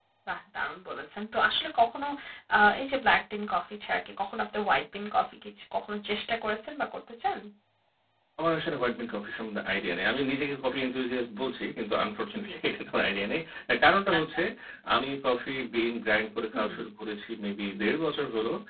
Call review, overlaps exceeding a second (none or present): none